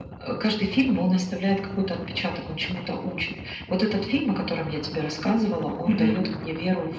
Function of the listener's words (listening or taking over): listening